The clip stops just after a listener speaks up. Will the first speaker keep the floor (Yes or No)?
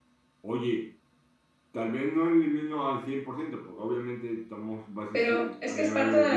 No